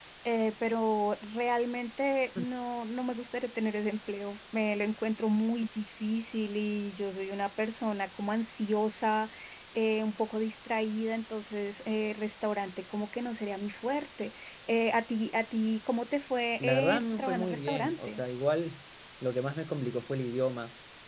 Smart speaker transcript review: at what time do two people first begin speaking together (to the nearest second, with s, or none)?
17 s